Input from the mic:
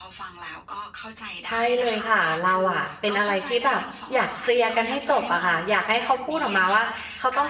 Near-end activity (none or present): present